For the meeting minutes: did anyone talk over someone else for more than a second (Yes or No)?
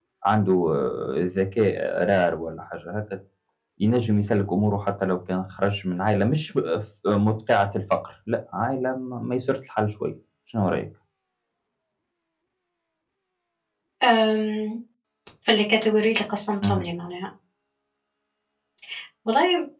No